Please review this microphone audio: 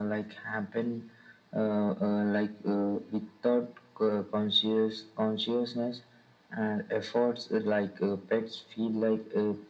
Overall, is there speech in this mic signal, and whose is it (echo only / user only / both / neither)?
echo only